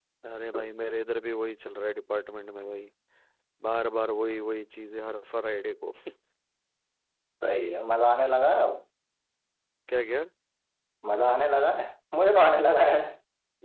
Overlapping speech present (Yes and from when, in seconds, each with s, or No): No